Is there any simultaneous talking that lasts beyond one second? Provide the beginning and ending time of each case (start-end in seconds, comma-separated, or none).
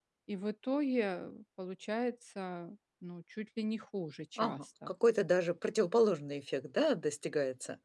none